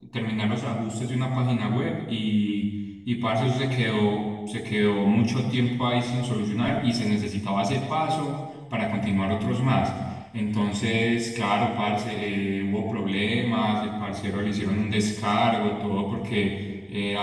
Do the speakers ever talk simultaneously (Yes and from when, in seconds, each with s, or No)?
No